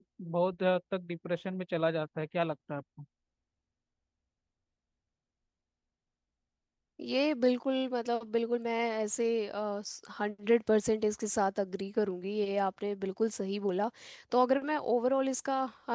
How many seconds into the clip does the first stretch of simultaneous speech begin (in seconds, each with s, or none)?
none